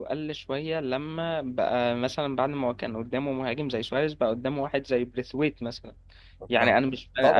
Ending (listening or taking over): listening